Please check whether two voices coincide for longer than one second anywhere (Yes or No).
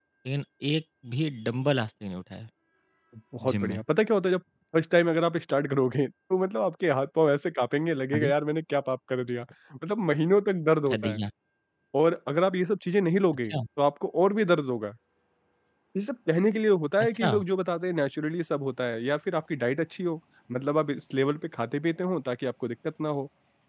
No